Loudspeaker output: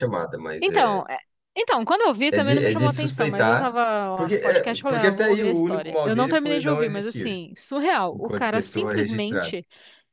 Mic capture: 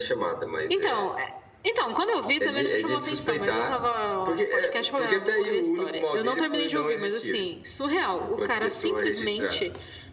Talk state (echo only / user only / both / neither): echo only